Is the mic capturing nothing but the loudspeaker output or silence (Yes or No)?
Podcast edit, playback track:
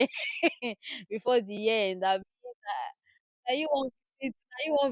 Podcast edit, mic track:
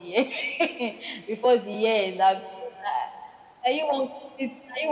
Yes